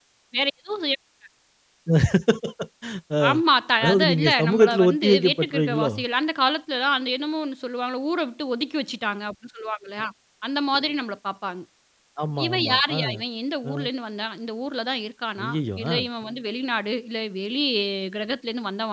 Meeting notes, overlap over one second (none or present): present